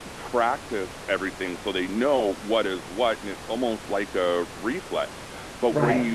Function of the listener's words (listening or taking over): listening